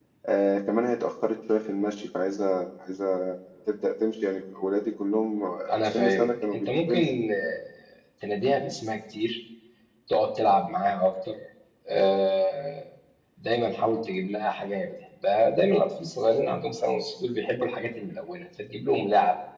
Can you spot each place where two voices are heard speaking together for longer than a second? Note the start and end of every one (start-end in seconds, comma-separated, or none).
5.7-7.0